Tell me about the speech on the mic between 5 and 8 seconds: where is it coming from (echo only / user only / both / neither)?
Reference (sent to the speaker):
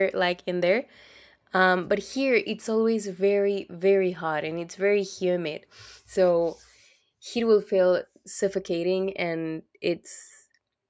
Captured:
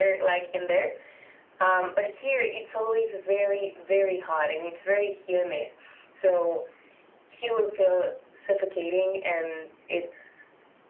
echo only